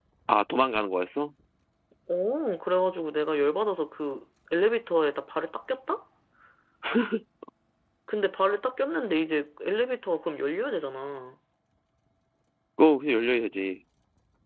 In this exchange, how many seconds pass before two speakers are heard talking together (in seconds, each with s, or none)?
none